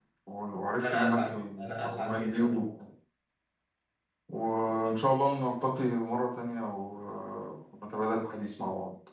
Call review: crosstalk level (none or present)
present